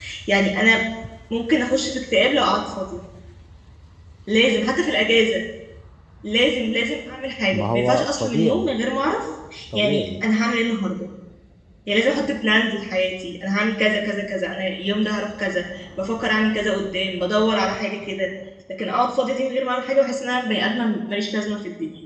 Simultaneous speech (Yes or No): Yes